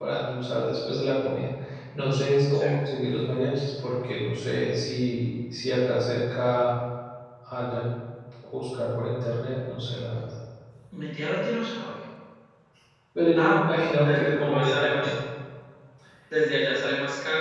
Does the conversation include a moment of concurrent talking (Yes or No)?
Yes